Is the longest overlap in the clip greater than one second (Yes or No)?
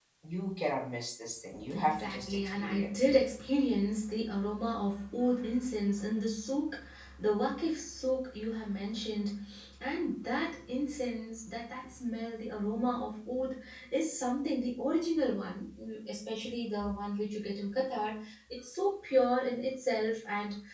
Yes